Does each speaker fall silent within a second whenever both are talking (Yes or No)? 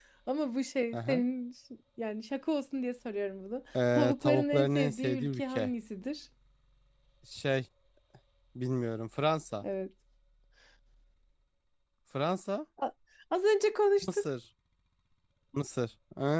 No